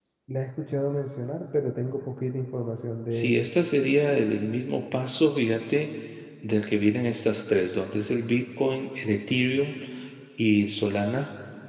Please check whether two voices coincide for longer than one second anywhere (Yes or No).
No